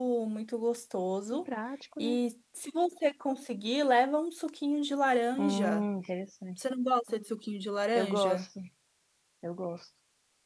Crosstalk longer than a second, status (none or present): none